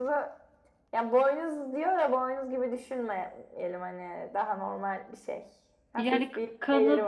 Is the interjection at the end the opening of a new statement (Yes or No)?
Yes